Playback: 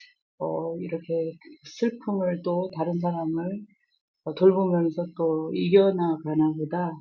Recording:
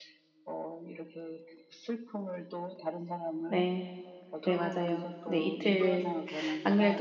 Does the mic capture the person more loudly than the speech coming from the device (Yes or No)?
Yes